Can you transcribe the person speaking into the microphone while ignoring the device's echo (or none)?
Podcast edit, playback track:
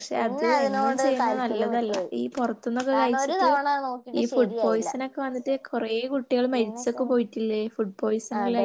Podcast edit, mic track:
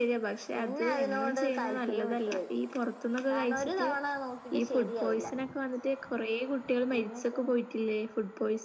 none